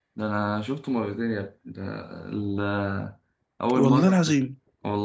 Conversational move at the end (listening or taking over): listening